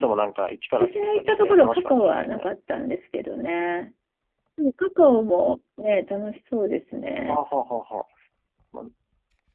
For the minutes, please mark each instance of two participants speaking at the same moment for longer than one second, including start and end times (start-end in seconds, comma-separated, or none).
0.8-2.4